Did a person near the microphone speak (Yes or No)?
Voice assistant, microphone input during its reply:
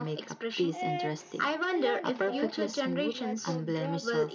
Yes